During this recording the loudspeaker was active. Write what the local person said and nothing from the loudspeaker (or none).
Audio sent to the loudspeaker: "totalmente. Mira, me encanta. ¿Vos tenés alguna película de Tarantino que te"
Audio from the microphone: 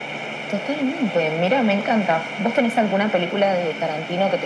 none